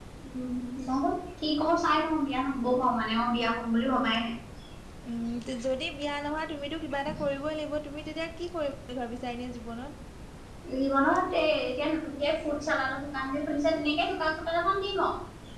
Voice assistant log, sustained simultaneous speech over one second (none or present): none